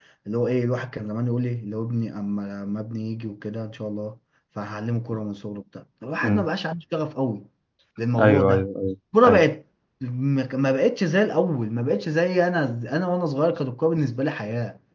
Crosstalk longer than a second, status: none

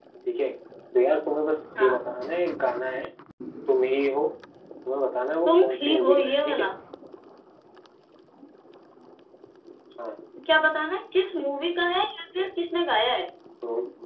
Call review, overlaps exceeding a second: present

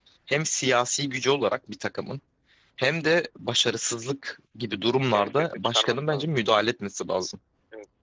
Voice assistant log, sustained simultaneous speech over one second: present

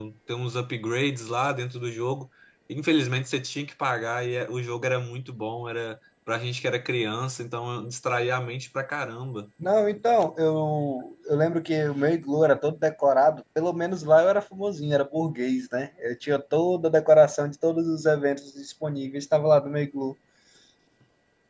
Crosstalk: none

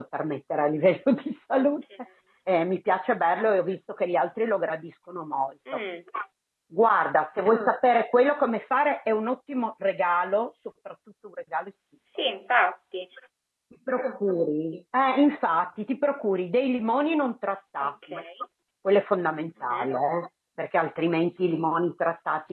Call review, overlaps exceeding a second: none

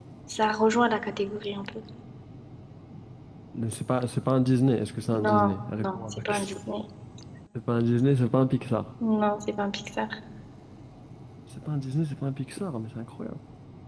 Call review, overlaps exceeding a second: present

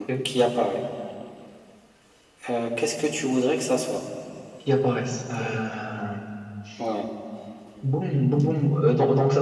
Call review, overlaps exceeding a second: none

